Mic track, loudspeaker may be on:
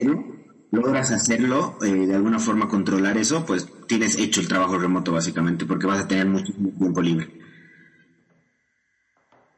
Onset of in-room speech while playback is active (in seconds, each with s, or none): none